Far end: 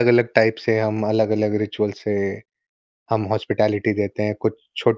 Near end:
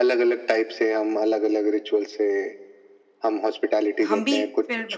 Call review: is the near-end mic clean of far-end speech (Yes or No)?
No